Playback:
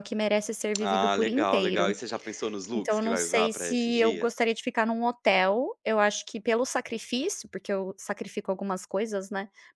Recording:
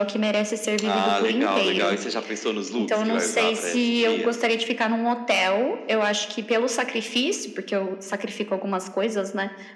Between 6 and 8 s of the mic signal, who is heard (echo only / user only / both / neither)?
echo only